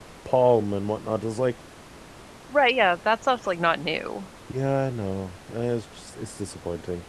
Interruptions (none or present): none